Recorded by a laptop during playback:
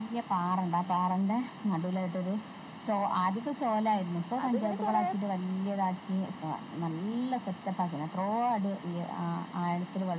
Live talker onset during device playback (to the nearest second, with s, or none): 4 s